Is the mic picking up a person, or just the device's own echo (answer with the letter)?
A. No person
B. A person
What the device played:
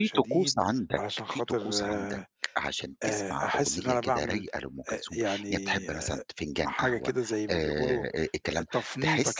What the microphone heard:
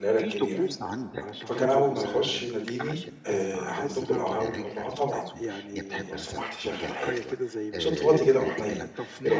B